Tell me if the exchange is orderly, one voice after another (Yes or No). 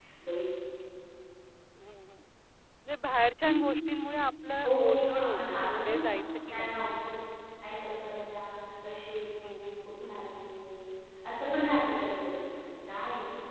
No